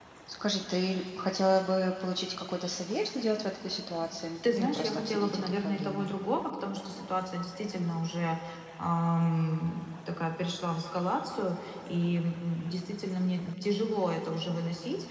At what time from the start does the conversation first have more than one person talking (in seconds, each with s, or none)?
4.4 s